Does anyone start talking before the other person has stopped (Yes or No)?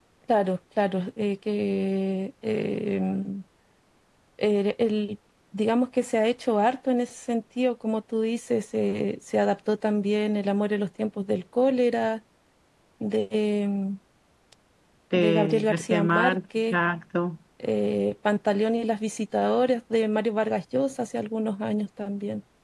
Yes